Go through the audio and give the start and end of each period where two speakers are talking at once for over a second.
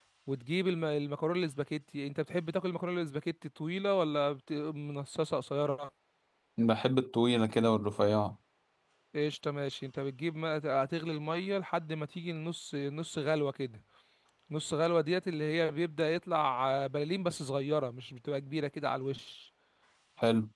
none

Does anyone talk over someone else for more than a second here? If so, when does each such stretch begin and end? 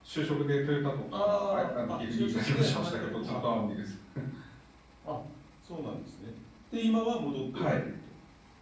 1.1-3.6

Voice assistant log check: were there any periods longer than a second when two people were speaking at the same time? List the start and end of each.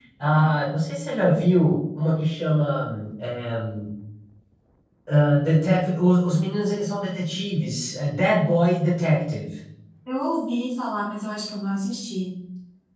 none

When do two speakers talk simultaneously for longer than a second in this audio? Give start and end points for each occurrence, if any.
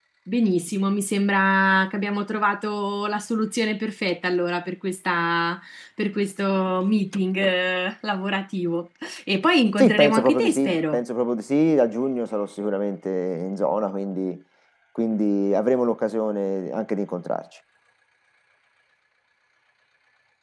9.8-11.0

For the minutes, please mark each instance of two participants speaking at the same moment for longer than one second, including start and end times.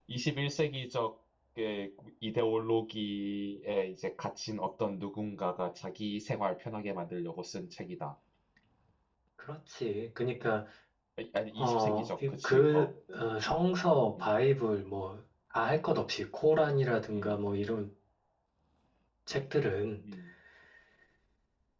11.6-12.9

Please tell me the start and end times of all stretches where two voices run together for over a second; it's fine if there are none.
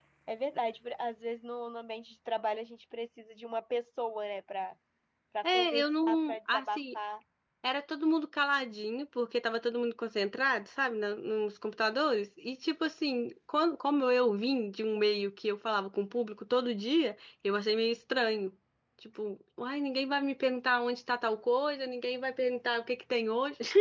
5.4-6.8

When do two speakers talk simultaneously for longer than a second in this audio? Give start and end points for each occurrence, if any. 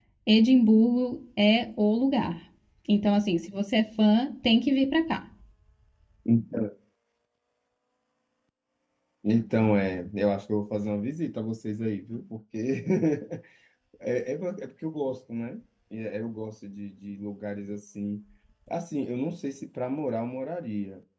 none

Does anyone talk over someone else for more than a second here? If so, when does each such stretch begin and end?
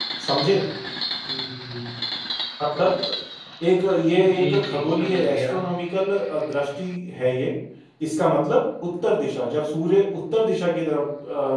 4.3-5.5

